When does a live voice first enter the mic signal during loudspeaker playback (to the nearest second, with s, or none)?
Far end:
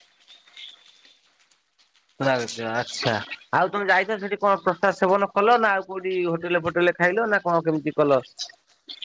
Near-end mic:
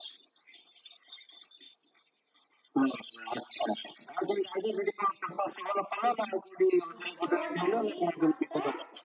7 s